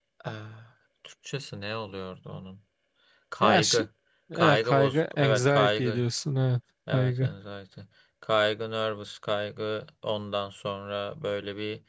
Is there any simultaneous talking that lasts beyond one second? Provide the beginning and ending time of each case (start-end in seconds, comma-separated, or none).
4.3-6.0